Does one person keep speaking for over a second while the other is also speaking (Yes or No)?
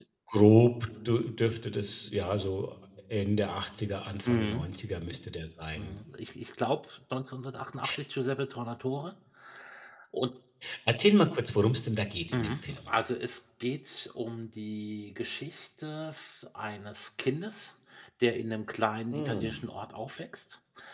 No